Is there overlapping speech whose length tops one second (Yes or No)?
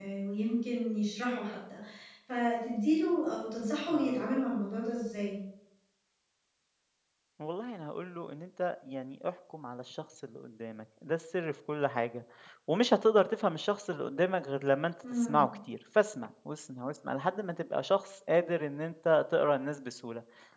No